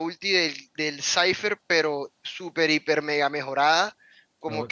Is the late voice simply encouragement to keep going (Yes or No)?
Yes